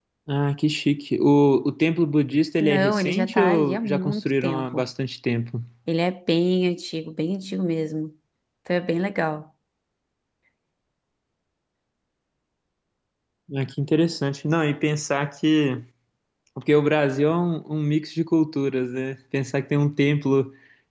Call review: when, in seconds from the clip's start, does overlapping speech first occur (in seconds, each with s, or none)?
2.6 s